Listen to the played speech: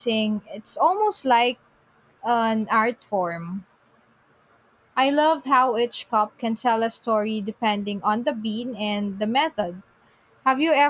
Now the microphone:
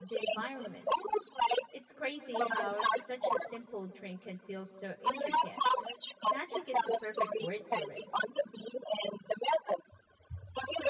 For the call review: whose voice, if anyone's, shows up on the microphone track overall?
both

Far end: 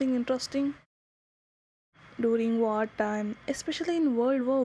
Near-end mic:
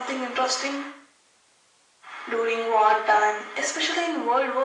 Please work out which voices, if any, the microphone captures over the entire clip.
echo only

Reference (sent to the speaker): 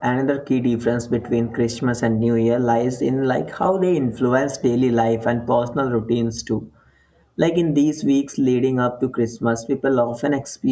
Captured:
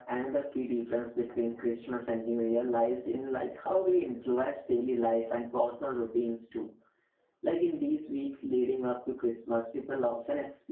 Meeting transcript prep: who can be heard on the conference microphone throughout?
echo only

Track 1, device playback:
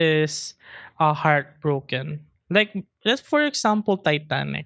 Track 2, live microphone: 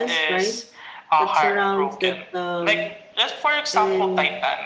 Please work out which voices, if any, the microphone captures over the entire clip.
both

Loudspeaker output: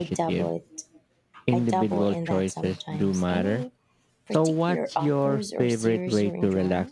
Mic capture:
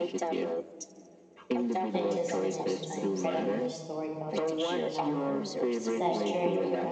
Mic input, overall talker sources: both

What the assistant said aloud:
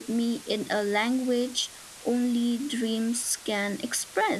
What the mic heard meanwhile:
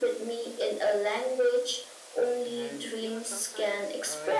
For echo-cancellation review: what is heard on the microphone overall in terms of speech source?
both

